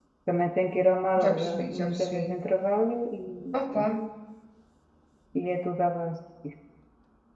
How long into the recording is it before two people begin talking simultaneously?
1.2 s

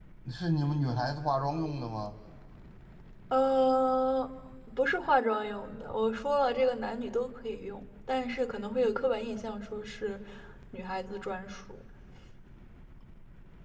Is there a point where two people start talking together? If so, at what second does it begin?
none

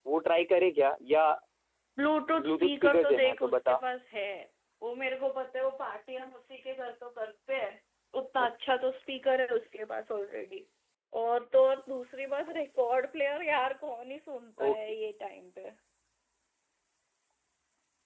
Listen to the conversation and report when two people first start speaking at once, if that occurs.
2.4 s

